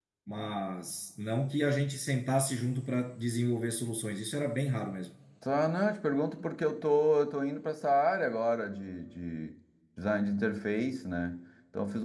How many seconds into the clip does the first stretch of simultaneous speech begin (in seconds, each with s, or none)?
none